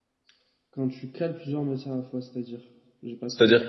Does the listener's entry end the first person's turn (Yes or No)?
Yes